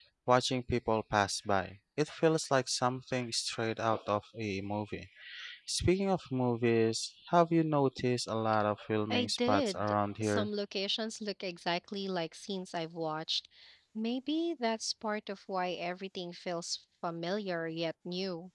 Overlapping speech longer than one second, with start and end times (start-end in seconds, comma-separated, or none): 9.1-10.5